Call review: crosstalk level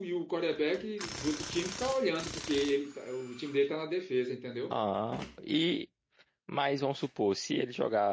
none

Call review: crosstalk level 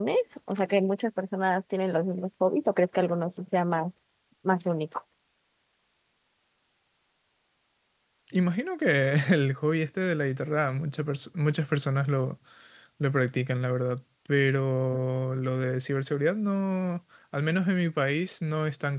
none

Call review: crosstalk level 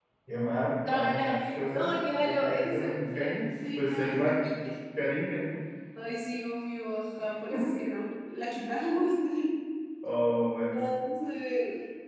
present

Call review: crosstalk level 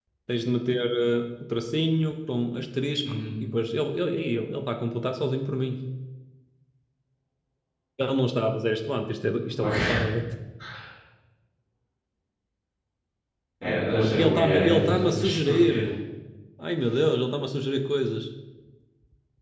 present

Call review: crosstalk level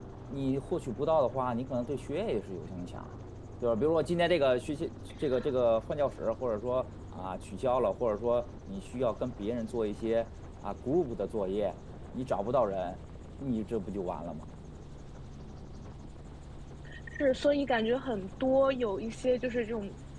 none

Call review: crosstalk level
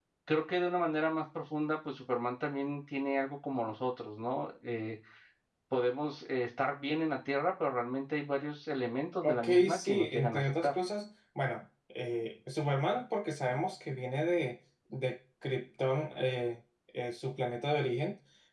present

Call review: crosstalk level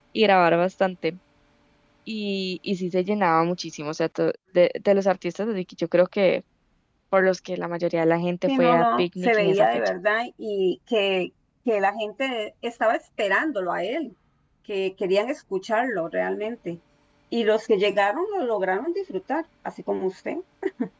present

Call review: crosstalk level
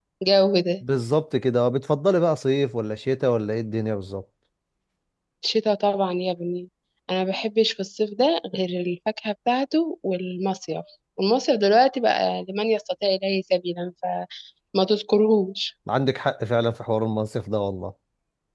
none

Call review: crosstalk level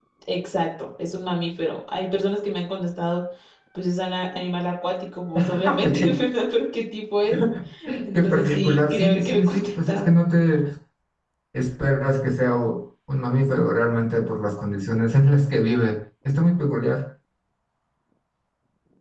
present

